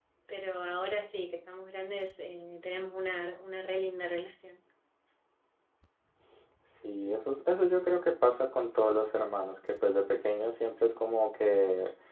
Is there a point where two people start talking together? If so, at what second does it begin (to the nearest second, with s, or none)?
none